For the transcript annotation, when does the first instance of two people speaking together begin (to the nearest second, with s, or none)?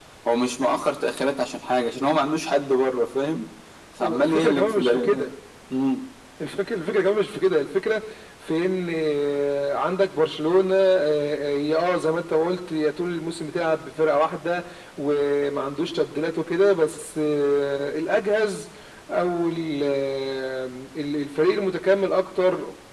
4 s